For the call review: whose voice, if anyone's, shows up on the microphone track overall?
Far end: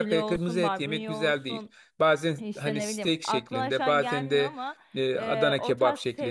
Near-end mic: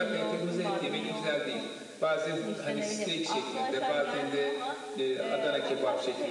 echo only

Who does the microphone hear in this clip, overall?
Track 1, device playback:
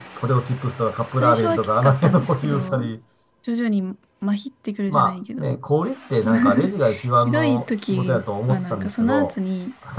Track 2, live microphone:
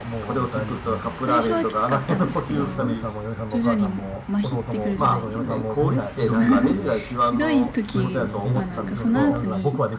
both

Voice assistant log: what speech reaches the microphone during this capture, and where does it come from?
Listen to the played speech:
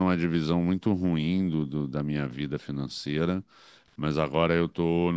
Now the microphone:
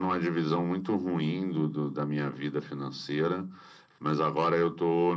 echo only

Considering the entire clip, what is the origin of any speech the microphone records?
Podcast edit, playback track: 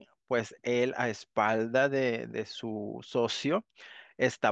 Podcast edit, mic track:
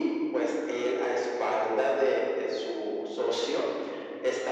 echo only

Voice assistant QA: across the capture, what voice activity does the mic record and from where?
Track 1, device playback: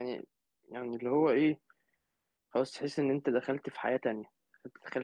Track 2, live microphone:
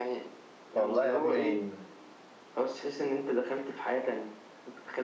both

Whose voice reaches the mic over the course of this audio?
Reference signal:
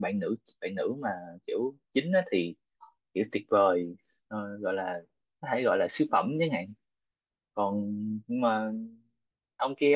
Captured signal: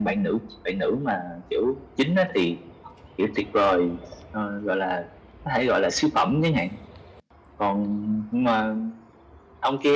echo only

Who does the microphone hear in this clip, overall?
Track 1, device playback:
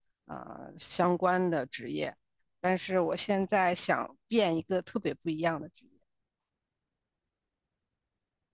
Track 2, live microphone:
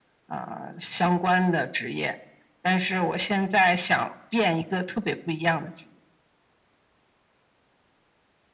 echo only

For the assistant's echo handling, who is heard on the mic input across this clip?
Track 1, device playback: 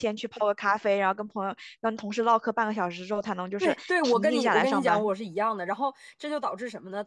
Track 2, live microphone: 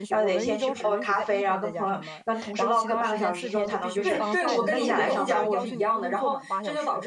both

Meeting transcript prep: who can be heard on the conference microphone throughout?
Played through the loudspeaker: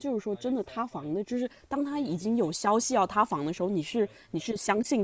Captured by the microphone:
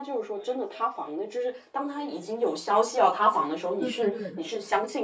both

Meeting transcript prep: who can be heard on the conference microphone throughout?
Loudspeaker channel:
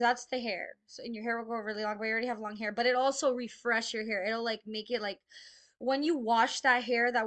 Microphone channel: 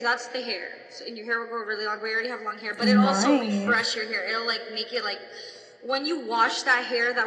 both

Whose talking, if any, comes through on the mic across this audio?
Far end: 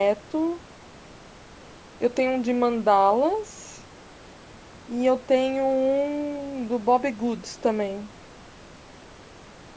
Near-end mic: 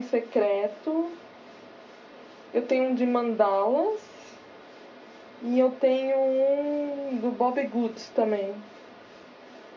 echo only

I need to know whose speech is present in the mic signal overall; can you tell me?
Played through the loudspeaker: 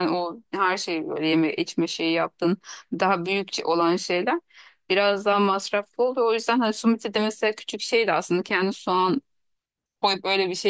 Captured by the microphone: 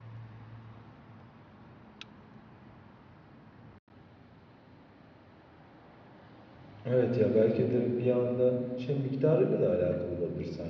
user only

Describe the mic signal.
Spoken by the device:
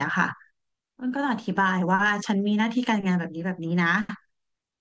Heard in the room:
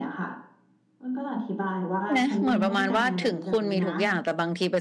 both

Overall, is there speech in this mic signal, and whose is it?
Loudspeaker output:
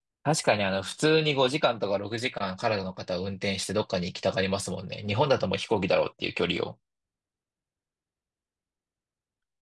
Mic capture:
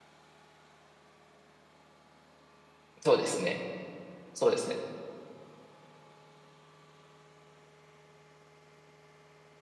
user only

